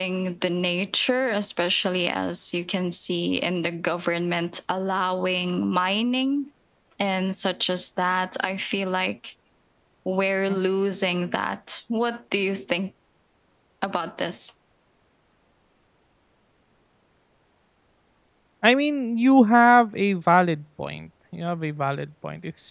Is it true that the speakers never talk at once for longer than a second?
Yes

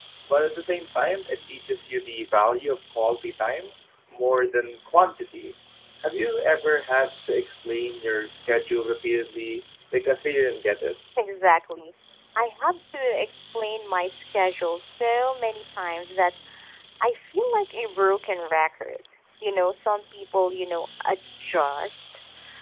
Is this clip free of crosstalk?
Yes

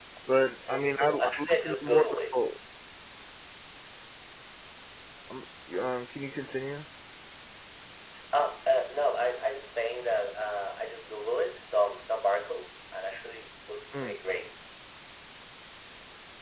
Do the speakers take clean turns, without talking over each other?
No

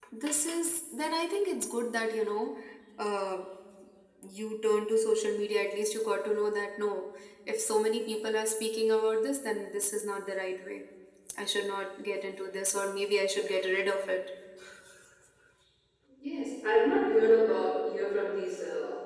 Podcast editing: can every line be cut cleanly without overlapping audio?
Yes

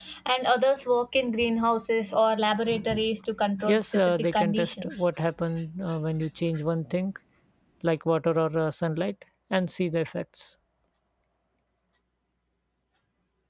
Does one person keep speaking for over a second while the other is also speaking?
Yes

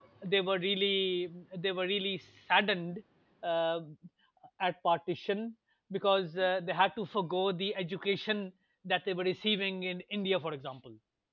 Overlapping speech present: No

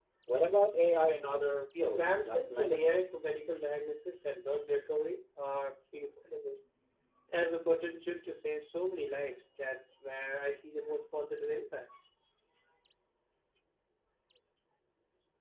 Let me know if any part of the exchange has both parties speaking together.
Yes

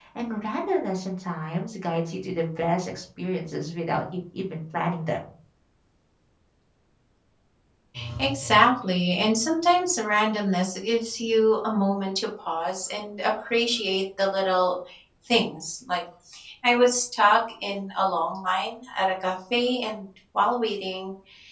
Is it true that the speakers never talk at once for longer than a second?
Yes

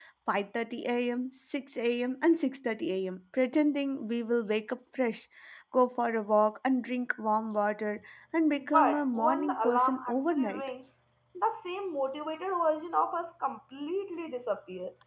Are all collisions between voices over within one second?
No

